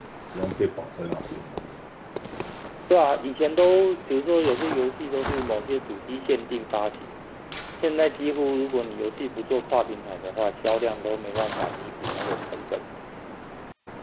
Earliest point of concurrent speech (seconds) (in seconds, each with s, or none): none